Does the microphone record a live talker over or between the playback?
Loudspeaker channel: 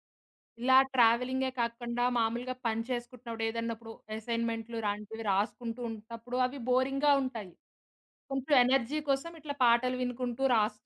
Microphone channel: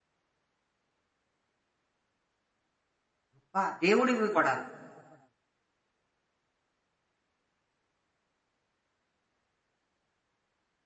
Yes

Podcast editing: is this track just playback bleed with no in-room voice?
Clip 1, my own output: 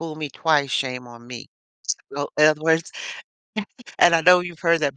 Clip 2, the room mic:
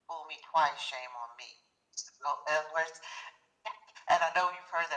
Yes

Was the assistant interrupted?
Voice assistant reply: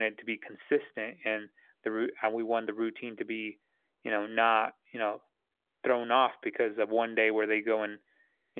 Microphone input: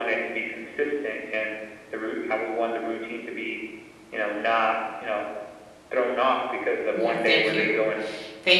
Yes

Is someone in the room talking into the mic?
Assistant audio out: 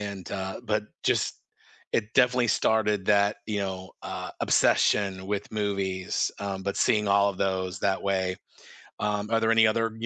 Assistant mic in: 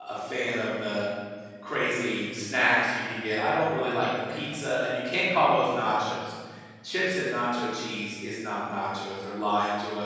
Yes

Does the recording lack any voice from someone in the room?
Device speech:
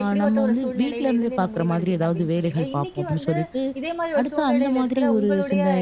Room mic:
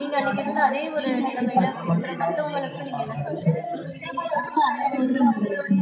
No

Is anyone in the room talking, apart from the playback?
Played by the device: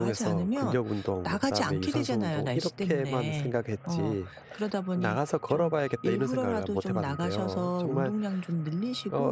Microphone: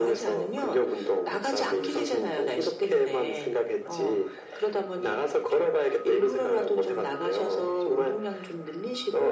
No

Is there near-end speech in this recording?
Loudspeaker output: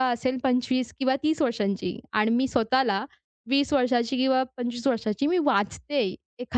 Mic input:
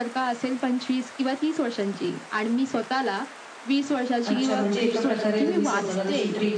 Yes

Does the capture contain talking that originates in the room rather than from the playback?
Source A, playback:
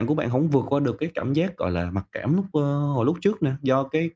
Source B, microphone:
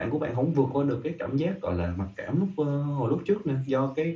No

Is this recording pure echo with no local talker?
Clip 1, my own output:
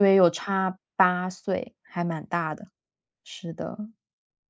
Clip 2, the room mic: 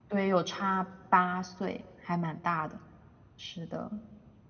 Yes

